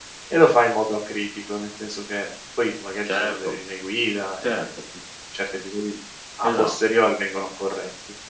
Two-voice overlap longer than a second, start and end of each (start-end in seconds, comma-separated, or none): none